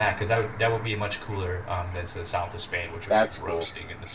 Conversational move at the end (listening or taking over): listening